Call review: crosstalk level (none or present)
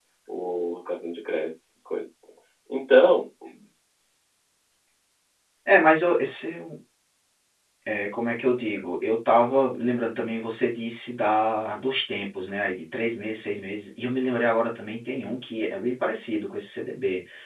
none